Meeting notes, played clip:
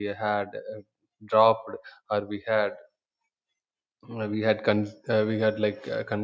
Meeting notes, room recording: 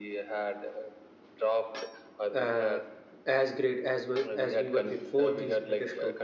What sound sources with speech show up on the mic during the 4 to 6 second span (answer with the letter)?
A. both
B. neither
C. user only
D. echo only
A